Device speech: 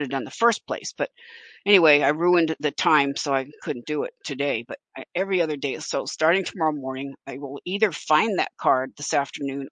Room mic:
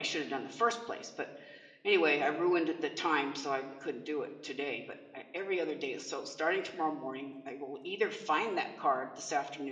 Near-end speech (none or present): none